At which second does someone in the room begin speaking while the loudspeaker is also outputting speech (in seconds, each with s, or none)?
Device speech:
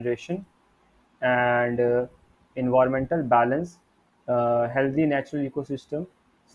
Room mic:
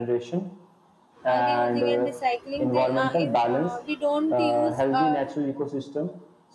1.2 s